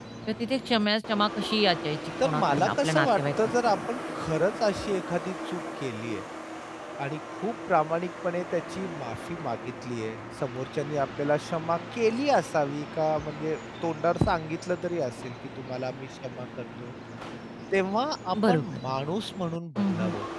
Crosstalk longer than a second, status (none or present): present